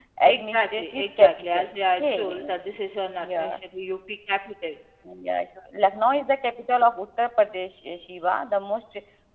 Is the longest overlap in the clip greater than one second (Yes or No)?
Yes